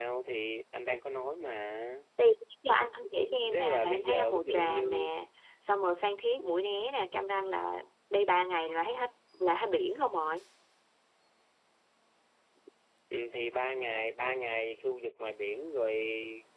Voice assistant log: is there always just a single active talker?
No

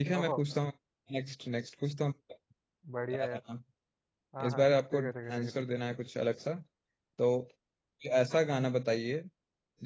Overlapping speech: Yes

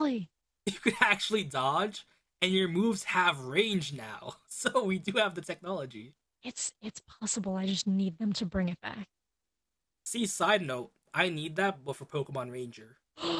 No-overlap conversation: Yes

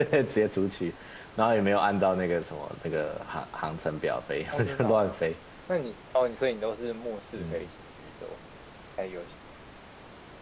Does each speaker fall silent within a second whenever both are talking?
Yes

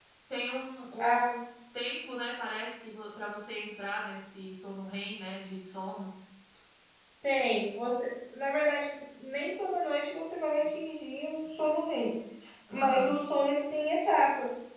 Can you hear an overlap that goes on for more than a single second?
No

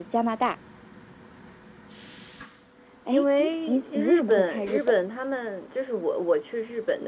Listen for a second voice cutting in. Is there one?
Yes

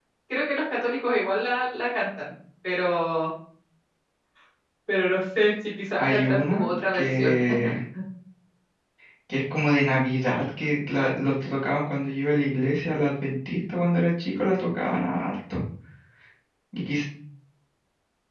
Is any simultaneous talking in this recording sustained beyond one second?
Yes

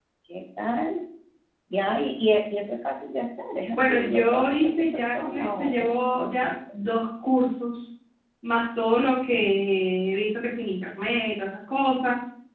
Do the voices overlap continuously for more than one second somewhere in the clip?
Yes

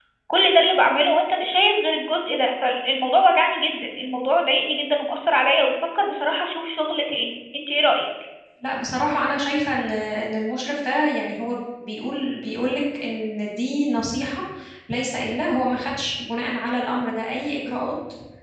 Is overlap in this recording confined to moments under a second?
Yes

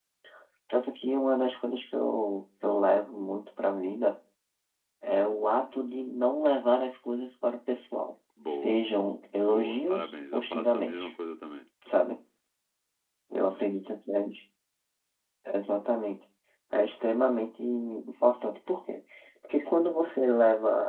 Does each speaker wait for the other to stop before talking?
No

